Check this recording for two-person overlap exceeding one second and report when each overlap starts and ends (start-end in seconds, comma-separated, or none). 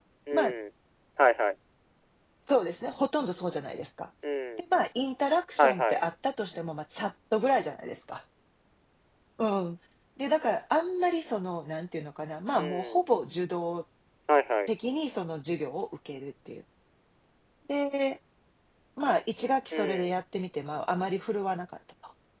none